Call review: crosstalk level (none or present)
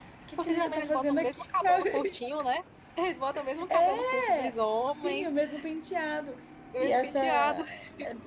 present